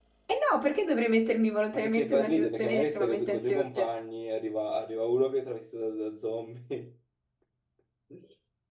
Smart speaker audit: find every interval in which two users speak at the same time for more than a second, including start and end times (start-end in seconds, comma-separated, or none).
1.7-3.9